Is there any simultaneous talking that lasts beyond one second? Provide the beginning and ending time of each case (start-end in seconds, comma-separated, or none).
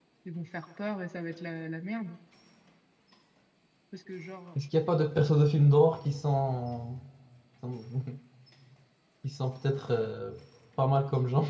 none